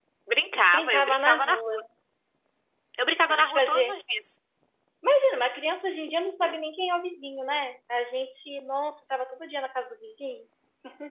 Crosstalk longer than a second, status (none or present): present